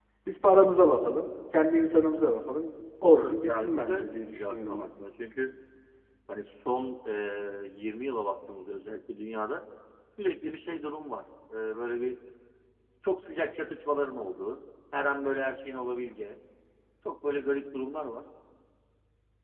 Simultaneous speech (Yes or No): Yes